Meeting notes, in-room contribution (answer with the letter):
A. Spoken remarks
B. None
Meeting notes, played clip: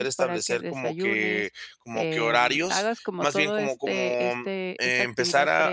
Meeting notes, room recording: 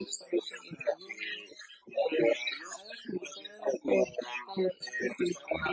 B